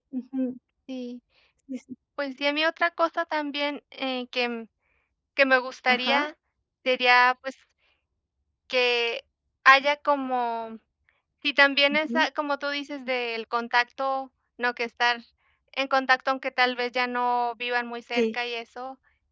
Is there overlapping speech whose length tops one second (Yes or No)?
No